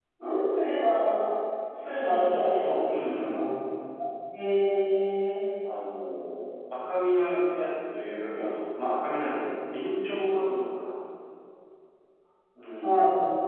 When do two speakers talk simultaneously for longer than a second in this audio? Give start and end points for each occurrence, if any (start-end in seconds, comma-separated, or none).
1.9-3.4